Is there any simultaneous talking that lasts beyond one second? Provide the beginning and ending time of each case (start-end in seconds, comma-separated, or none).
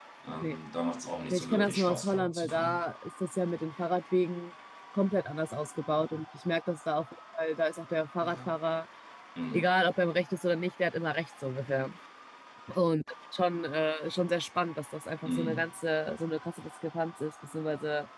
1.3-2.8